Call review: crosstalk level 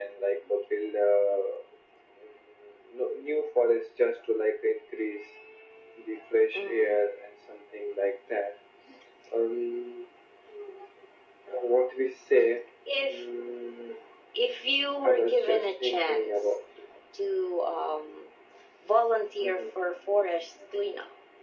present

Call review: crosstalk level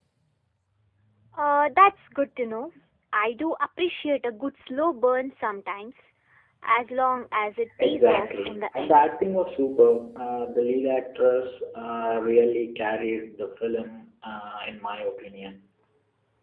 present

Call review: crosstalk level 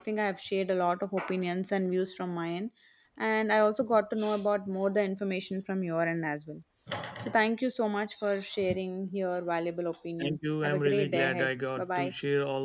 present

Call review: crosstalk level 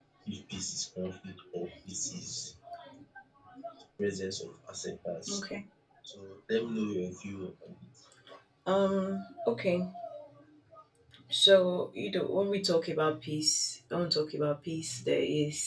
none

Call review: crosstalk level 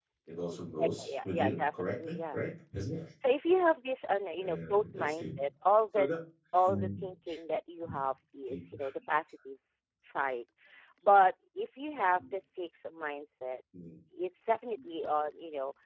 present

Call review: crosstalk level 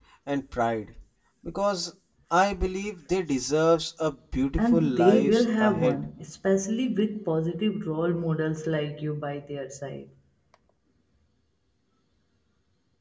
present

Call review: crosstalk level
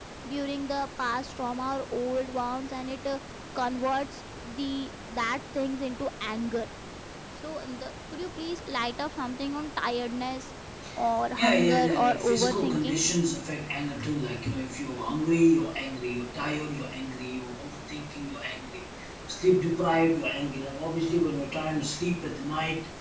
present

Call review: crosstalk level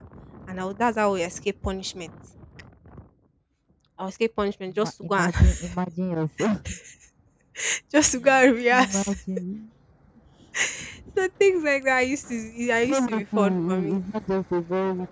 present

